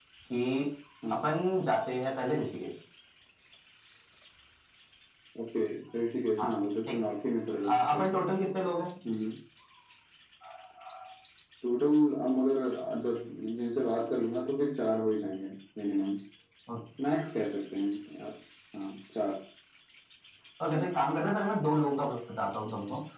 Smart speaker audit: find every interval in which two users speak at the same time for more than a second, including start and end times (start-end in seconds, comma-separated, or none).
none